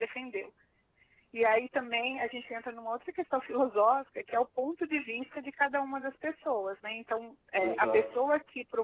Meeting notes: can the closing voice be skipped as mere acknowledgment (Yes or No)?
Yes